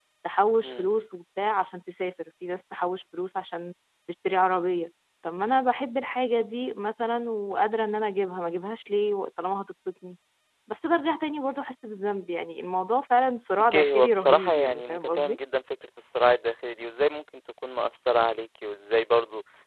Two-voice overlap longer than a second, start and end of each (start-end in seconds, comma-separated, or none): 13.7-15.4